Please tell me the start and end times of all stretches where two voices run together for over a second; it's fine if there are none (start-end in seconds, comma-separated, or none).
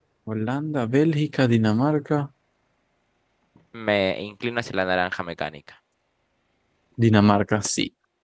none